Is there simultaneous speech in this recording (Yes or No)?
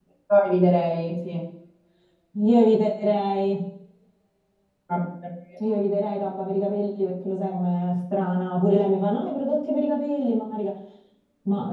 No